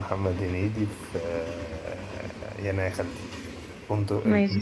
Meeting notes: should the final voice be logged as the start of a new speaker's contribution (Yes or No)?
Yes